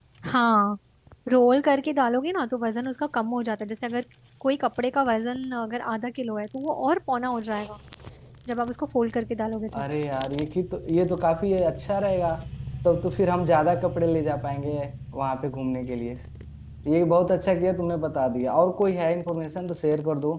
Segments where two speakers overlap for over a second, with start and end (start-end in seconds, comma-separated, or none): none